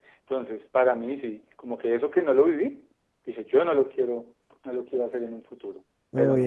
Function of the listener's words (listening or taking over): taking over